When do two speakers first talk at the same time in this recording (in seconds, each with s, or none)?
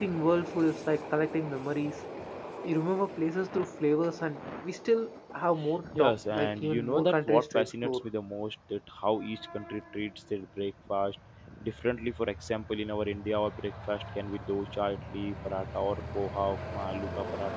6.0 s